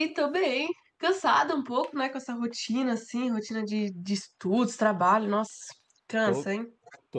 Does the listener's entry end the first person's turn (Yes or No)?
Yes